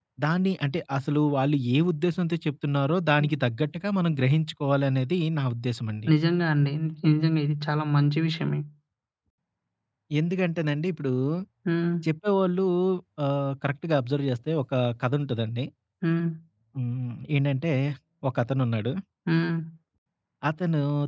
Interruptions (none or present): none